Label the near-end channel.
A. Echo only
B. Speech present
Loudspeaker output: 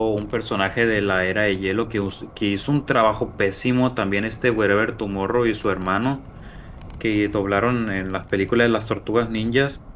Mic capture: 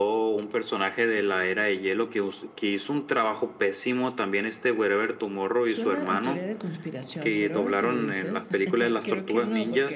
B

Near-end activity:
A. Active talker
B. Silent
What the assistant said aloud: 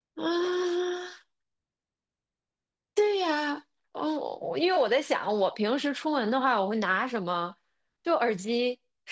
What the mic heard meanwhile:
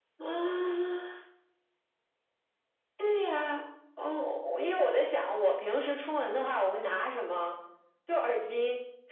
B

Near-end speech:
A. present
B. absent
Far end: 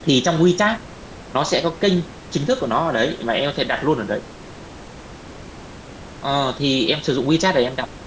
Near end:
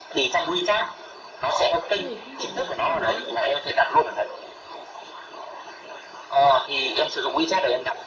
A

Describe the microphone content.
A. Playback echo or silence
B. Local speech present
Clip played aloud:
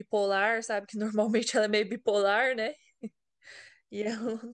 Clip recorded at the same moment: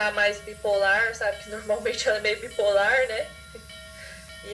A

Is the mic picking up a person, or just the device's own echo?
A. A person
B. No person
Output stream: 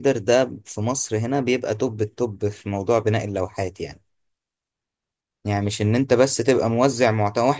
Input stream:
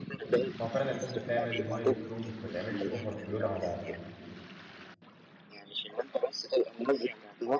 A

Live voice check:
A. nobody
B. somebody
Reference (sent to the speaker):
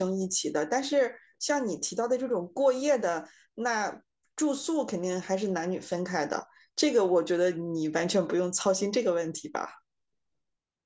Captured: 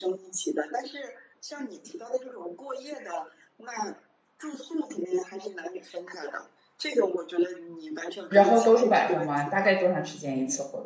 B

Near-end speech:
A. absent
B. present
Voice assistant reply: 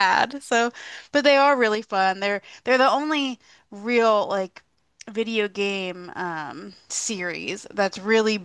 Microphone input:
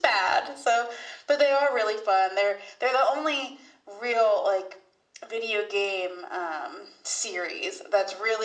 A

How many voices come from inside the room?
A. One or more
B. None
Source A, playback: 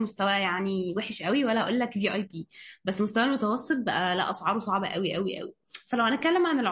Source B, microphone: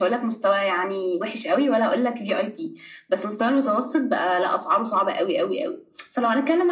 B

